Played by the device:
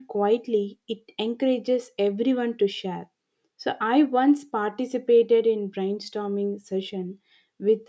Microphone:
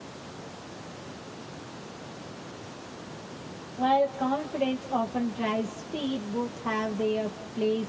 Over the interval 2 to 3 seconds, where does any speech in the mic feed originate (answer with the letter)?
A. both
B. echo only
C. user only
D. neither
D